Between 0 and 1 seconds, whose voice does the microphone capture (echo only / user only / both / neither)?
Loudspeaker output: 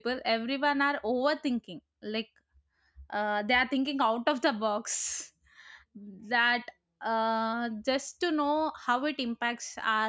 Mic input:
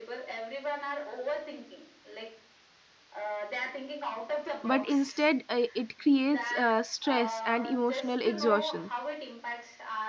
echo only